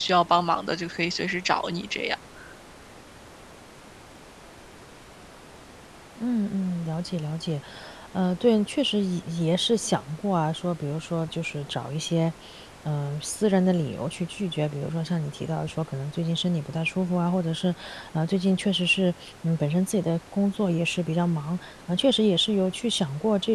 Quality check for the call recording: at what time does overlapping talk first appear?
none

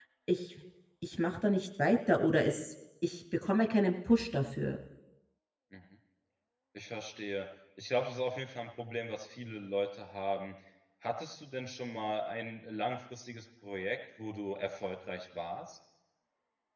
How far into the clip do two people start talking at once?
none

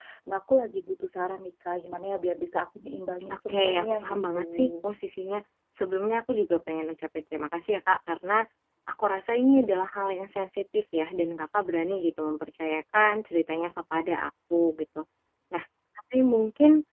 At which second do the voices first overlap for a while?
3 s

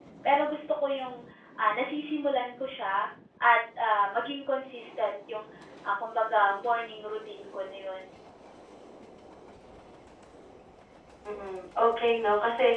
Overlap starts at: none

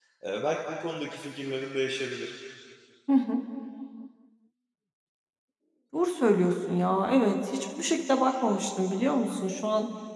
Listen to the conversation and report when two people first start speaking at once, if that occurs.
none

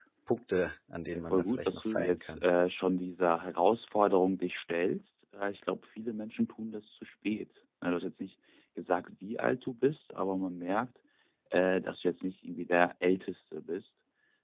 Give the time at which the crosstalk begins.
1 s

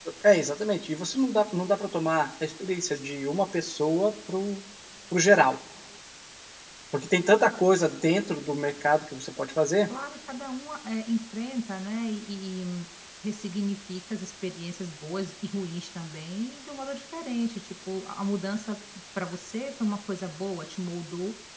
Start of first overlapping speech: none

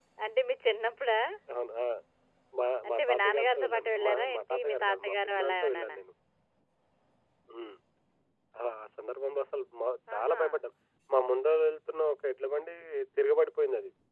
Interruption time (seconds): 3 s

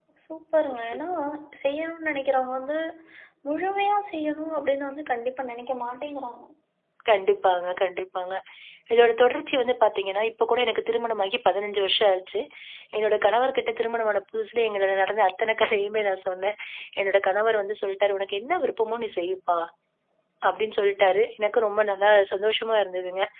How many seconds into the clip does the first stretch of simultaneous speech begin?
none

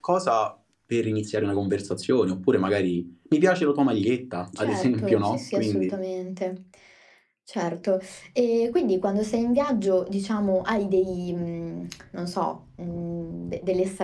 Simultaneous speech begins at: 5 s

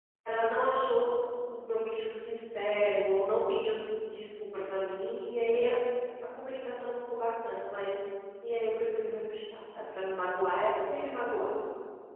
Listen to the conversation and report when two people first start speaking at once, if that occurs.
none

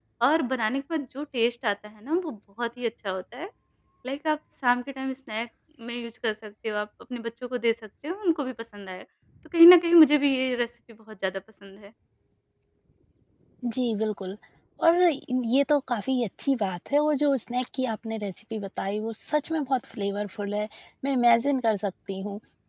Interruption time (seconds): none

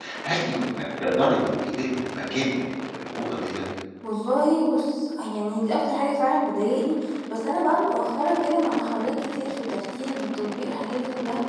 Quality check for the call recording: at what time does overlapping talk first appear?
none

